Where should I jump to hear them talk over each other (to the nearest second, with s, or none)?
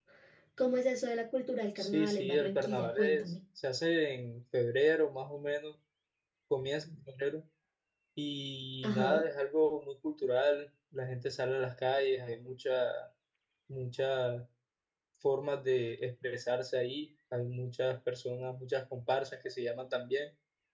2 s